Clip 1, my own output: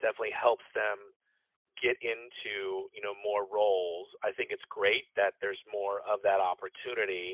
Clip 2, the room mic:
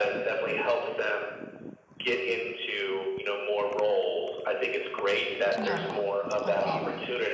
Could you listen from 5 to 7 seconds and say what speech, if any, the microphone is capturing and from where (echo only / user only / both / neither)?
both